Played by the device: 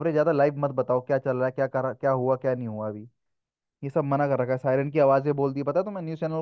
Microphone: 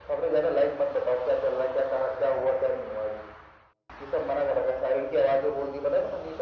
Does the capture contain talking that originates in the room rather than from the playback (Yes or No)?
No